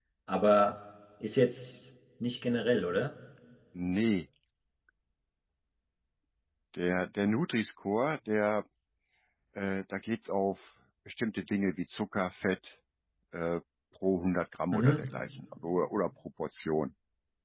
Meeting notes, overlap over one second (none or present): none